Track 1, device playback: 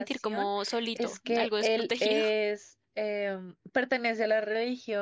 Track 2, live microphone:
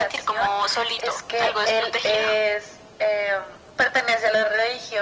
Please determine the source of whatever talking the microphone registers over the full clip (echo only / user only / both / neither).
echo only